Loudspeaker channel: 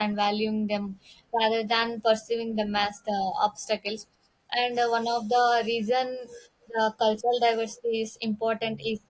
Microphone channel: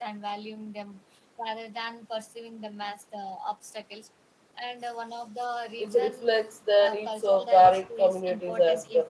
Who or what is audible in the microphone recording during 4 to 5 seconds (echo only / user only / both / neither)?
echo only